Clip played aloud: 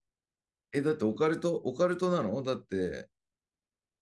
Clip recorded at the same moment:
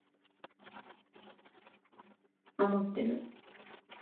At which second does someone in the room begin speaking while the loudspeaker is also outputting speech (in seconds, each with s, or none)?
2.6 s